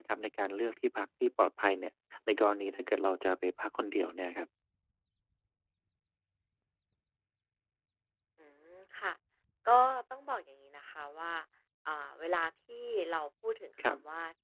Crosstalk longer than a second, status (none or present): none